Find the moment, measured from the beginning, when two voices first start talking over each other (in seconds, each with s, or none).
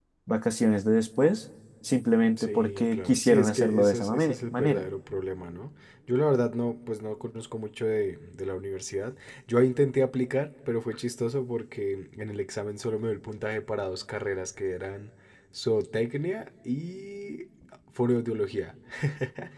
2.4 s